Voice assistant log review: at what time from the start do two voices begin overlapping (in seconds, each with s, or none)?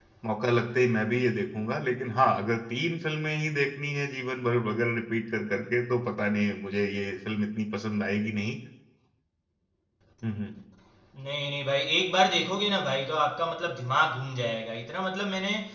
none